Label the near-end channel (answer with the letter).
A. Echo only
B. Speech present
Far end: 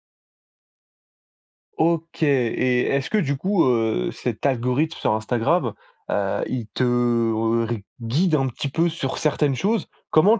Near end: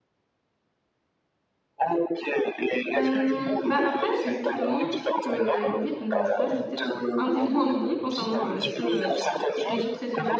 B